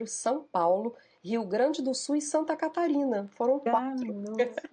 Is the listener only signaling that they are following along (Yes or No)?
No